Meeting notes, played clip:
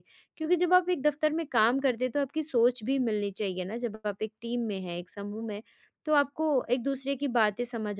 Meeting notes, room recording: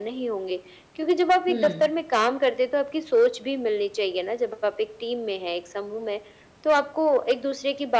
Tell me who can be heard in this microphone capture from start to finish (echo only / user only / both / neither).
both